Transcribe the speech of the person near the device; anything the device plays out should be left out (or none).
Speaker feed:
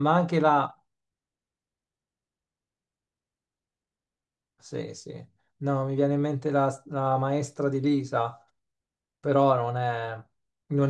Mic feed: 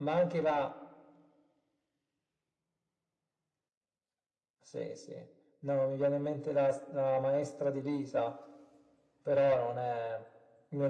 none